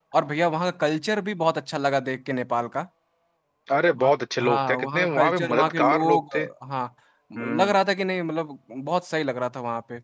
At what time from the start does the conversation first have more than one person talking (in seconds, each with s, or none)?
4.0 s